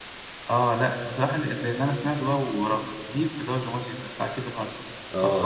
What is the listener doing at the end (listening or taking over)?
taking over